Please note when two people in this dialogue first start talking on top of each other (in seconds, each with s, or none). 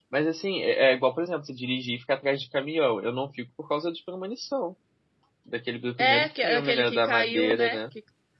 6.0 s